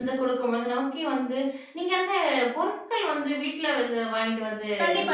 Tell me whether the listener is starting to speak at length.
Yes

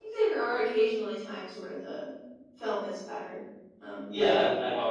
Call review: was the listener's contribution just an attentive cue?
No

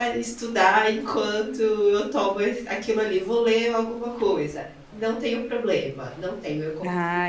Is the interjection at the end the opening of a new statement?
Yes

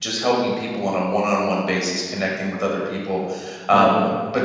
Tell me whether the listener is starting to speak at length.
No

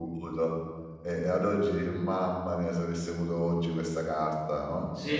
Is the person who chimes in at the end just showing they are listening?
No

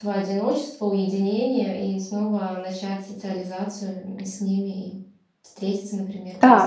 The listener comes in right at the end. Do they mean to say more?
Yes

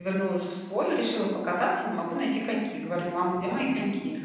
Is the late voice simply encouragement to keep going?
Yes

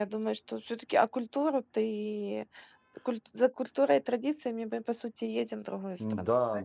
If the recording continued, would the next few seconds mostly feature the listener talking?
Yes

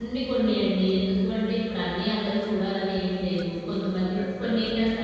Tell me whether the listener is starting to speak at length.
No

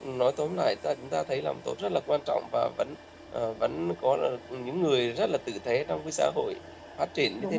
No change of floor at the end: Yes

